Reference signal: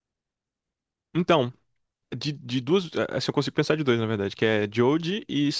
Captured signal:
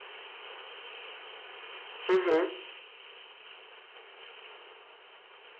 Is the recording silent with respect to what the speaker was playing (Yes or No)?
Yes